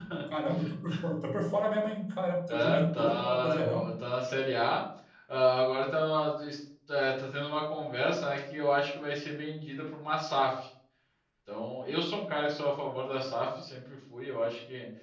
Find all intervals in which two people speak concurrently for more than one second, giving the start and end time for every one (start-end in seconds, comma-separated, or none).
2.5-3.9